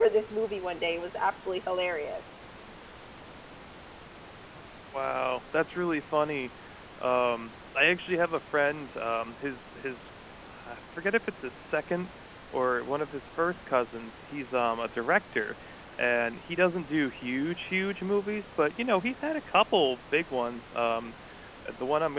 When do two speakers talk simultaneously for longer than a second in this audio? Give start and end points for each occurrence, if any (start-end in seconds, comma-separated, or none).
none